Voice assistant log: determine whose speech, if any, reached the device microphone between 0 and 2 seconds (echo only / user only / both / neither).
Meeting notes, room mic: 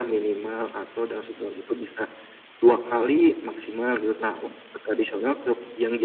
echo only